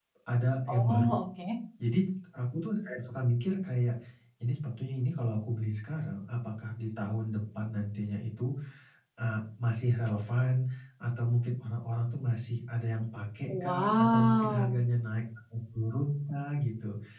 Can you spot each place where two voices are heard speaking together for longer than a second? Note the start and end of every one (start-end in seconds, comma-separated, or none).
13.5-14.7